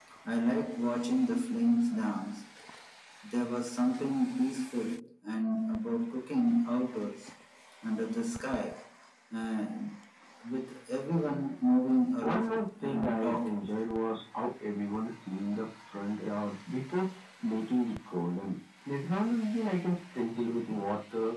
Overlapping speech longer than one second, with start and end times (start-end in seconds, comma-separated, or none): 12.2-13.6